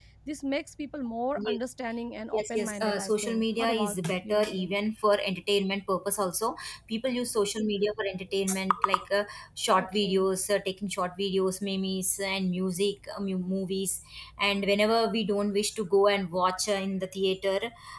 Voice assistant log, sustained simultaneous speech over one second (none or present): present